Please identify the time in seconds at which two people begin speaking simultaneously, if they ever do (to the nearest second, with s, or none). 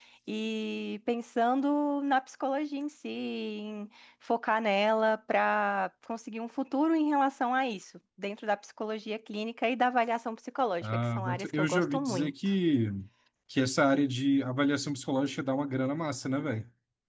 11 s